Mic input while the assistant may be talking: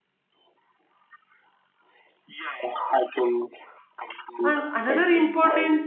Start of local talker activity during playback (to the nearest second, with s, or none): 4 s